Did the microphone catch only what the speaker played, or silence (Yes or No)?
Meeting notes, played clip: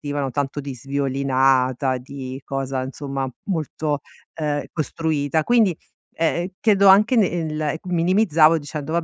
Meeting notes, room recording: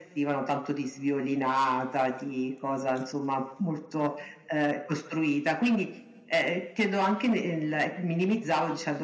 Yes